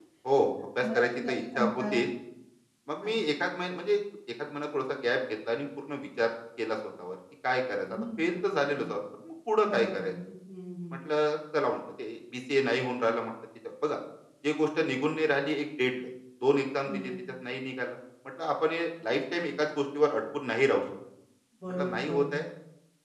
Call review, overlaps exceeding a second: present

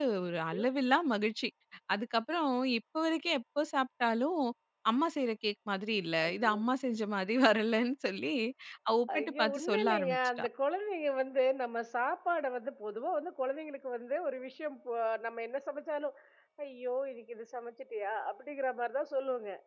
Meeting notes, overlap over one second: present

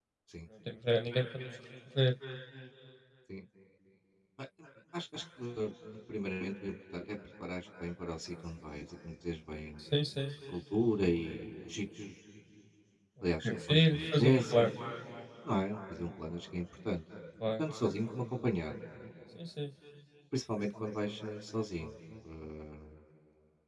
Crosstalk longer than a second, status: present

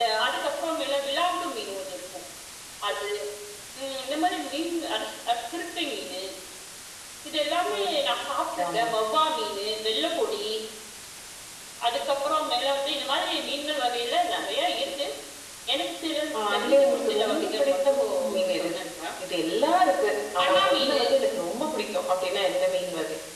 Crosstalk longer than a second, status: present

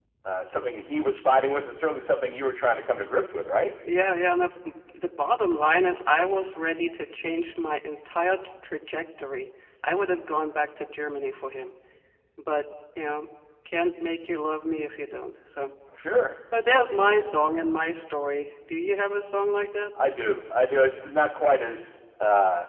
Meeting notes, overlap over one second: none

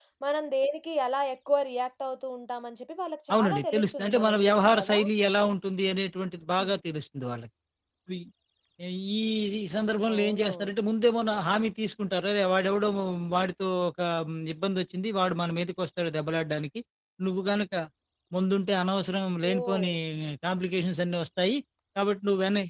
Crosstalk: present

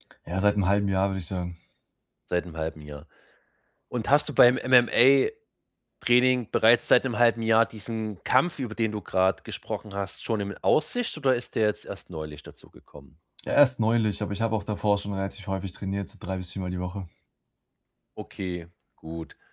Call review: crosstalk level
none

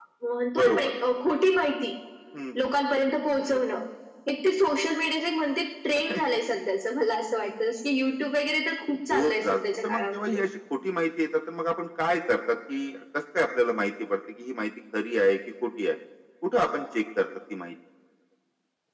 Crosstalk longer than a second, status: present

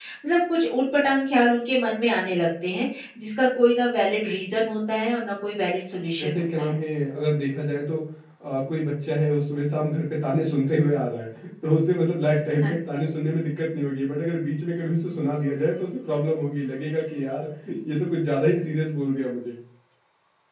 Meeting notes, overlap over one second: none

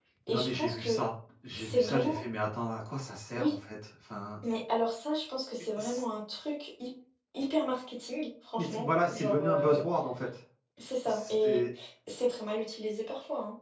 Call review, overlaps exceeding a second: present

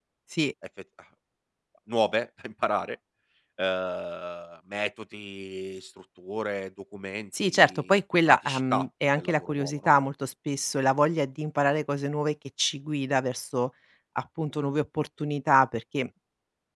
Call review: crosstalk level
present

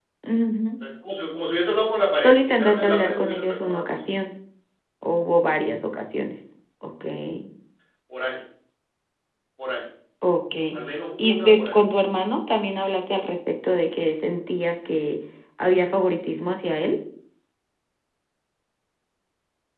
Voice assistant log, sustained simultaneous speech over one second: present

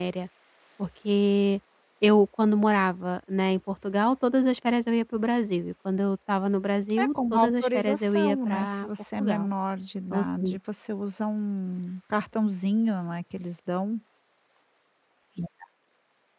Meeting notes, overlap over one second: present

